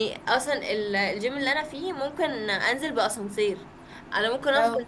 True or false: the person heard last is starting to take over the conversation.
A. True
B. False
B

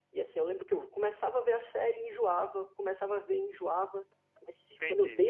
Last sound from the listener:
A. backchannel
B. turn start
A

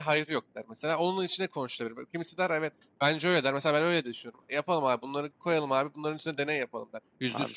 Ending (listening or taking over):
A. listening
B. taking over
A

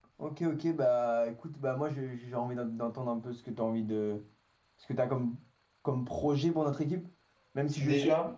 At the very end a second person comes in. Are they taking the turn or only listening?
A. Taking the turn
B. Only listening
B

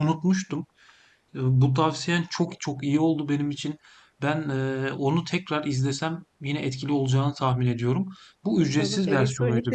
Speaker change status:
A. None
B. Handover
B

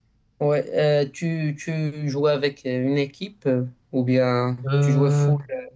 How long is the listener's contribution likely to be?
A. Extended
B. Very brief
B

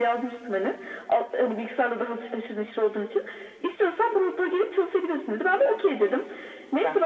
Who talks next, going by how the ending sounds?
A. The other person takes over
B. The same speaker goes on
B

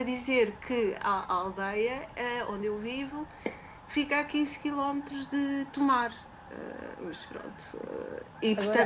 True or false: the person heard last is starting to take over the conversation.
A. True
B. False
B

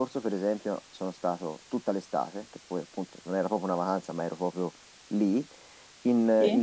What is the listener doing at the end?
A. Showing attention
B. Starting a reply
A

